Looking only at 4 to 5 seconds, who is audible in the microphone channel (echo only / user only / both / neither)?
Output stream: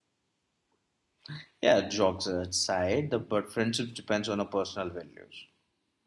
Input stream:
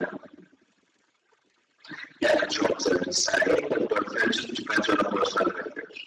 echo only